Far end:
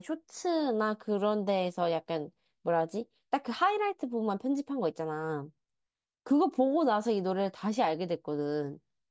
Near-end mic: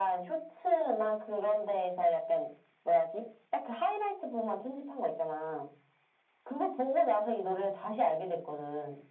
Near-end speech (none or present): none